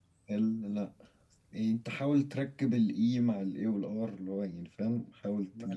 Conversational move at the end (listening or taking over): taking over